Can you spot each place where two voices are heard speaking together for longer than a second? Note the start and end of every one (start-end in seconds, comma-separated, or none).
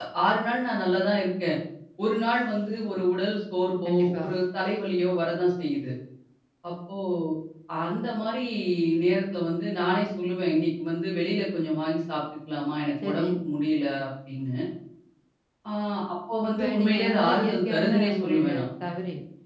16.5-18.6